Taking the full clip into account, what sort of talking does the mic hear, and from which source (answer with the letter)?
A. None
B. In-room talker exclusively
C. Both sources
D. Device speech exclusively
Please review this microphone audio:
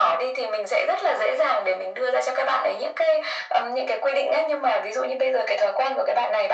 D